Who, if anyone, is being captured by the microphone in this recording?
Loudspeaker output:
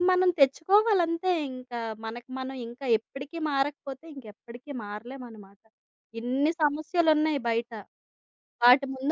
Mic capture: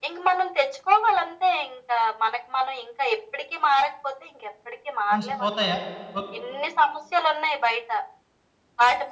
both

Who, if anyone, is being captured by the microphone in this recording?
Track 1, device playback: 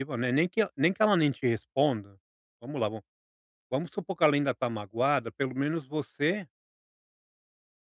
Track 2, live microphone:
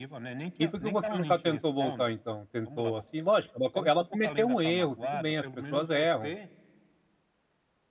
both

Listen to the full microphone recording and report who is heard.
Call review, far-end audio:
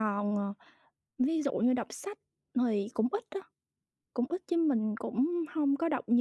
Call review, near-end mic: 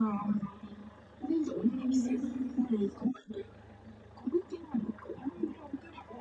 both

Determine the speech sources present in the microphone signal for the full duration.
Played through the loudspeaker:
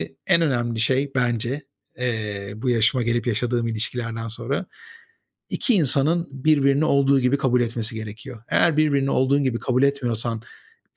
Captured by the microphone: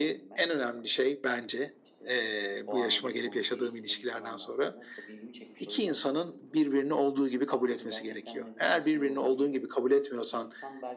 both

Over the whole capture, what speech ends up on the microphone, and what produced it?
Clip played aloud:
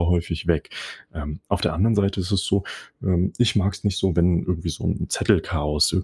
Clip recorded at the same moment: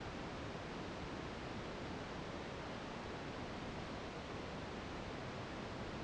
neither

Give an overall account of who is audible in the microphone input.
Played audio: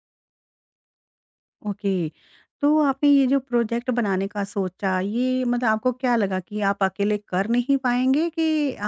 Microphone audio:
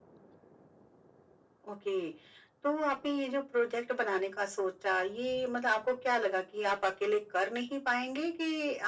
echo only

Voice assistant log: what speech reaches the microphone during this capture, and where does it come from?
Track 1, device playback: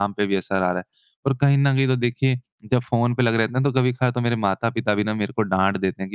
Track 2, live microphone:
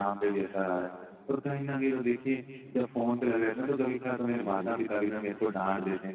both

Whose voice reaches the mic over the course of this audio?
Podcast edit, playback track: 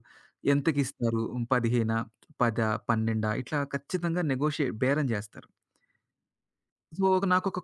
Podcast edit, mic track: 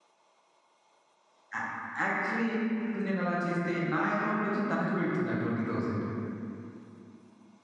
user only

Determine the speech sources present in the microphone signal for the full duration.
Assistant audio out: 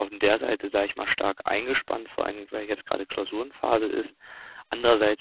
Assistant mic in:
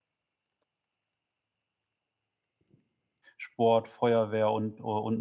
user only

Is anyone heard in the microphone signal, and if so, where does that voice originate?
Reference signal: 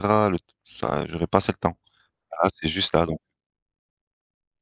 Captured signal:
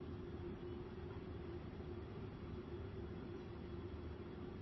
neither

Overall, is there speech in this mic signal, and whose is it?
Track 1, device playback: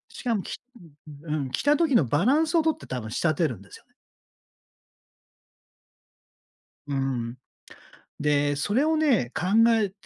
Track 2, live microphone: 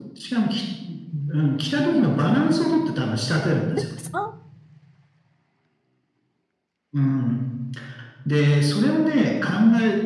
both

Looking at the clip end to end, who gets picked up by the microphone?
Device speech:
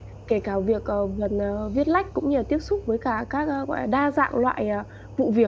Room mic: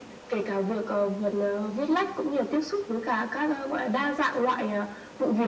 echo only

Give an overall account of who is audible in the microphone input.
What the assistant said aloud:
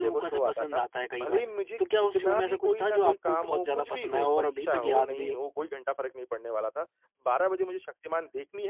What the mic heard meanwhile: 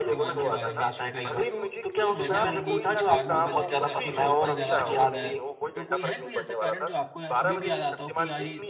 both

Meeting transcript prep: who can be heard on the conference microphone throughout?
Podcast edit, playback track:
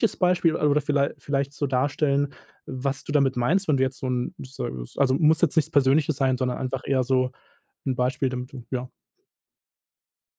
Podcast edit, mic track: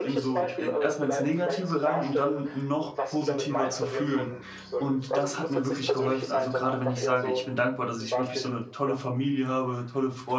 both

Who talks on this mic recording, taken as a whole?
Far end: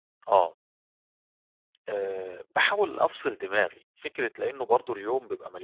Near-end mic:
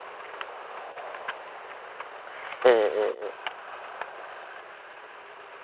user only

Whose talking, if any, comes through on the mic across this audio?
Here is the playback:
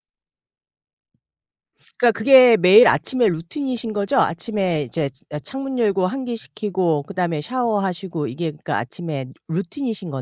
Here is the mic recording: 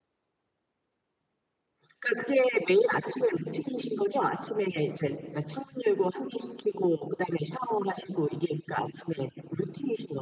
echo only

